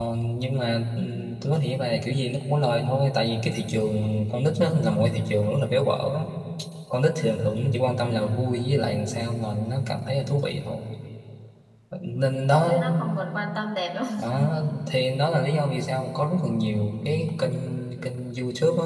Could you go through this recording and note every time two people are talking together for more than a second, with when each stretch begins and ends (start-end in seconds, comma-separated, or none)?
none